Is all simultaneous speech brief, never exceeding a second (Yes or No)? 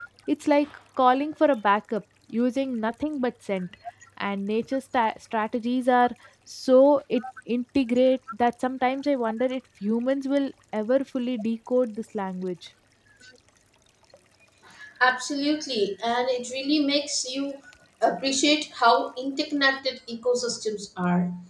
Yes